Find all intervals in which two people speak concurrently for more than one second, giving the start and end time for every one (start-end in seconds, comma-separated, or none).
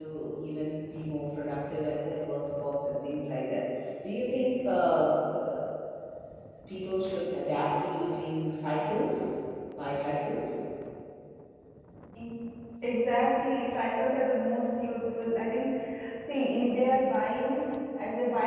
none